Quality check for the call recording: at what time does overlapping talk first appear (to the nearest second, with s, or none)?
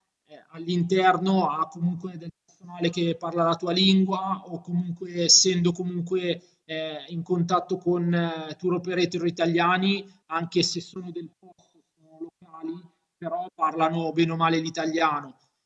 none